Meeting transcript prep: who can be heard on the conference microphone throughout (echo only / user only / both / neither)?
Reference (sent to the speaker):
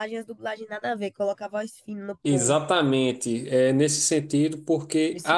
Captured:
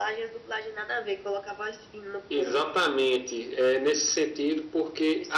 echo only